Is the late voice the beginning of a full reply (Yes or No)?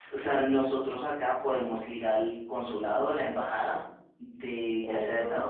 No